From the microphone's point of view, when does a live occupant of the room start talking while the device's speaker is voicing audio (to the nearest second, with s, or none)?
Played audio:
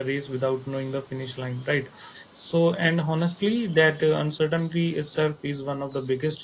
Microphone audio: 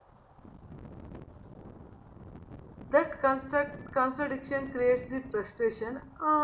3 s